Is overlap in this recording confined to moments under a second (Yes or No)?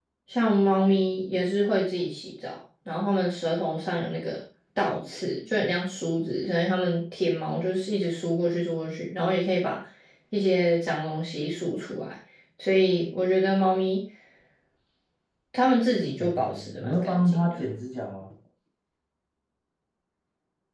No